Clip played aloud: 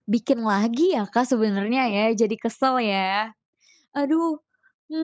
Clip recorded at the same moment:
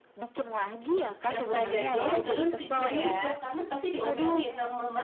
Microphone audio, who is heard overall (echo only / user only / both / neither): both